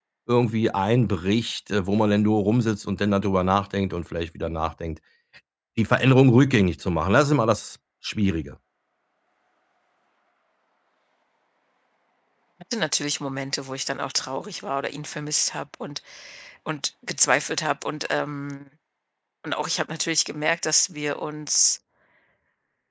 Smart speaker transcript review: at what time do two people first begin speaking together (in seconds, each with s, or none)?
none